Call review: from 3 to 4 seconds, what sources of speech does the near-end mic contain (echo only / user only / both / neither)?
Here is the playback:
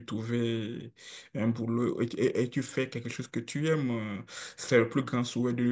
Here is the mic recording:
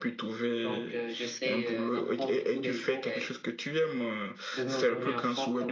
both